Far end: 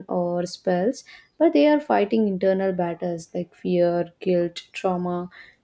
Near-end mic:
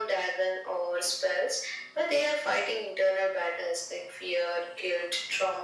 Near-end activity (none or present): none